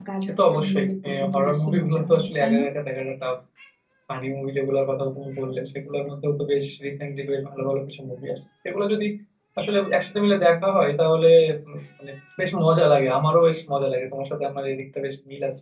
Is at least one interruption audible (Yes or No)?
Yes